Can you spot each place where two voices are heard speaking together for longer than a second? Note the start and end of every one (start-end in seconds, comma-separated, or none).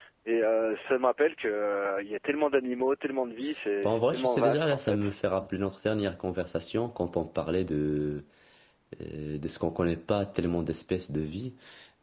3.8-5.1